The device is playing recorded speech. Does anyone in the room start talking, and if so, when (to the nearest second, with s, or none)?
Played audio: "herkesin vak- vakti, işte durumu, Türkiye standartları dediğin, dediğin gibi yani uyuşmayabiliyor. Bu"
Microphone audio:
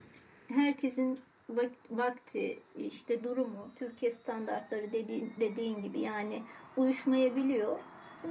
none